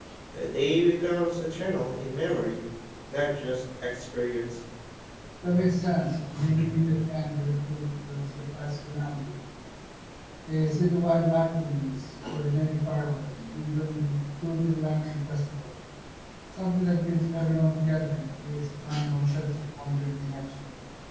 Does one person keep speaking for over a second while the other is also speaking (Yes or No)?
No